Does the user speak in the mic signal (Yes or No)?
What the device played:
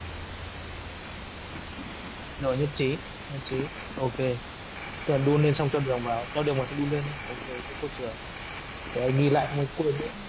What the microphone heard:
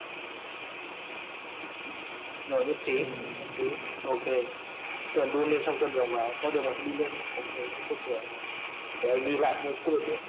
Yes